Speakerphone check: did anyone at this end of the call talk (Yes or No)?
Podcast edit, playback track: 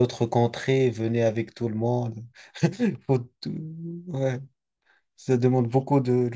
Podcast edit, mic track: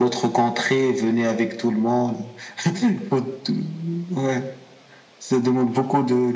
No